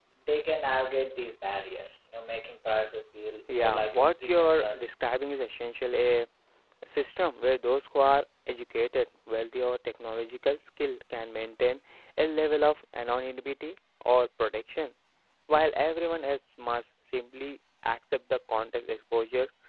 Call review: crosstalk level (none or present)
present